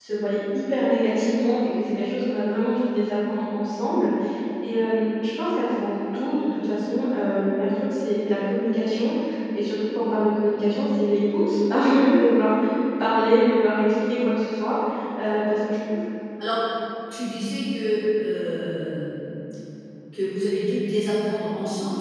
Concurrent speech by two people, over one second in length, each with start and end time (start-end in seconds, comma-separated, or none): none